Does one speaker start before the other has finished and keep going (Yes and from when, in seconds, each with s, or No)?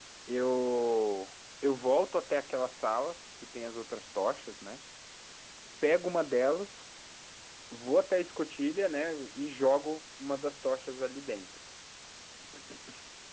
No